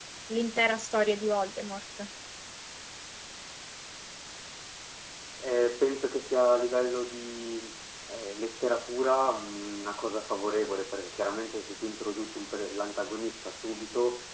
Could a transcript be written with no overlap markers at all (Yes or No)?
Yes